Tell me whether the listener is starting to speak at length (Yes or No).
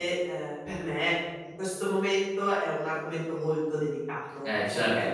Yes